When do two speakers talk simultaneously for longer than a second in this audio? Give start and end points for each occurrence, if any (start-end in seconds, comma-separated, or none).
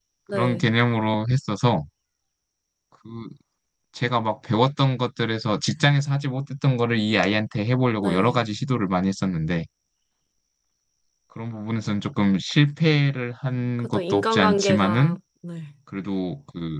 13.8-15.2